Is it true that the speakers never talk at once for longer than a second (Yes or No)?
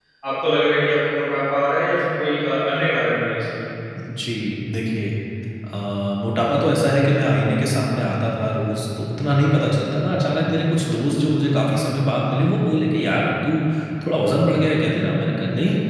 Yes